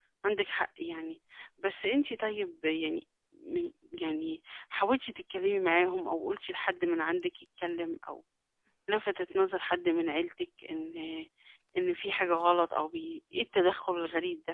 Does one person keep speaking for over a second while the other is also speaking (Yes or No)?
No